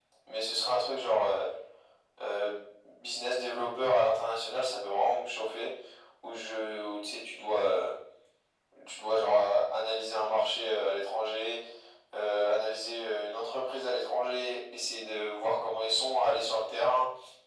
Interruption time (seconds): none

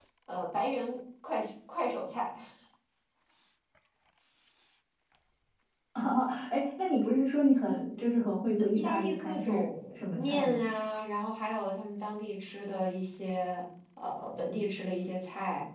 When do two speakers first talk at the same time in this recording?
8.6 s

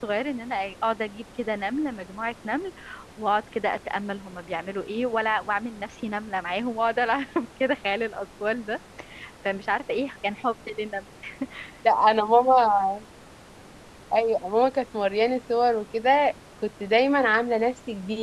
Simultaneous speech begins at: none

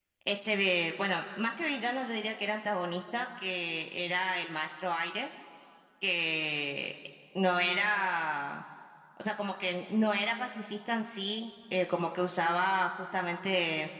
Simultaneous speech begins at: none

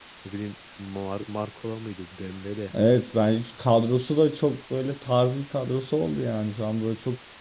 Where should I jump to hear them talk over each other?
none

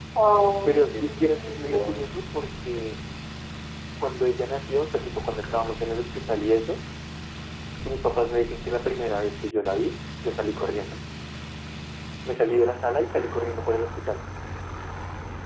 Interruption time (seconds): 0.7 s

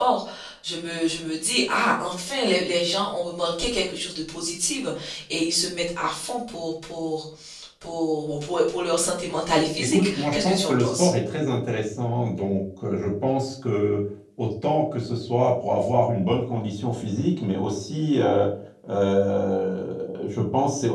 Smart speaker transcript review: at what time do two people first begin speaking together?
9.8 s

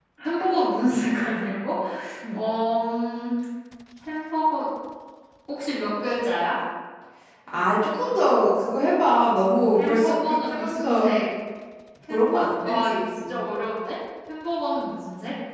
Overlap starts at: 9.8 s

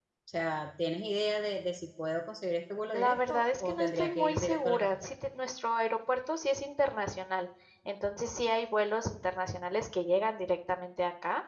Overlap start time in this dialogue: 2.9 s

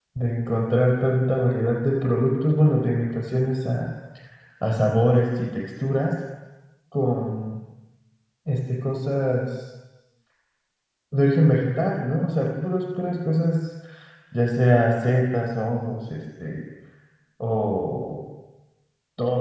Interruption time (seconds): none

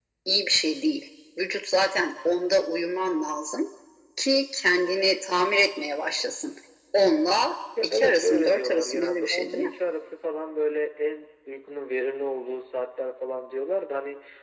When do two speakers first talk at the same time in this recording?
7.8 s

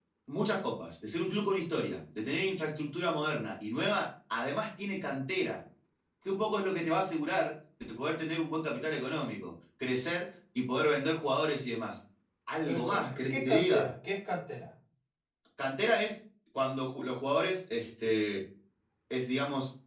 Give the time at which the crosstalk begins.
12.7 s

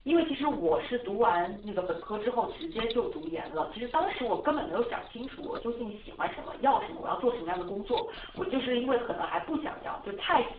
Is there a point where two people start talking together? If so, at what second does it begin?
none

